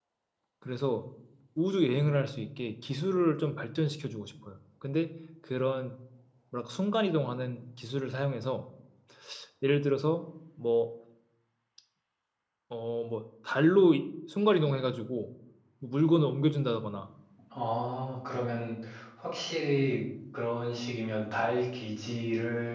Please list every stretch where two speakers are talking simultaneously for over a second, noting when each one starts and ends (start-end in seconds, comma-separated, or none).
none